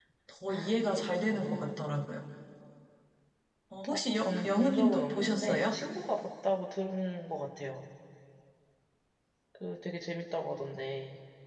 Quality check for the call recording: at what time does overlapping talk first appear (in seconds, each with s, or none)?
0.5 s